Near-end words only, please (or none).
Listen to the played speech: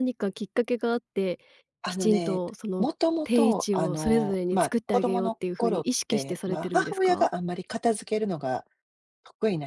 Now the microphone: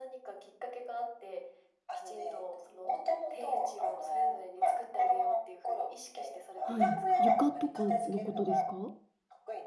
はい。床とかのことですか？